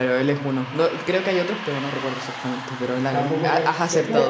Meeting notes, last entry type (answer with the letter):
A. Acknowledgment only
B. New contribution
B